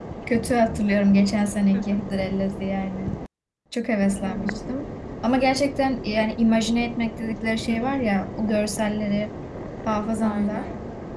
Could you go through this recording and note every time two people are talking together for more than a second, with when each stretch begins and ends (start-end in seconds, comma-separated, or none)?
none